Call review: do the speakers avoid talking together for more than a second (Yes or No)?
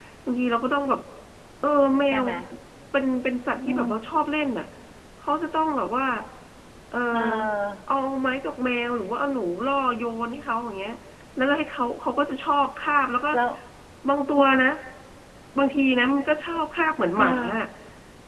Yes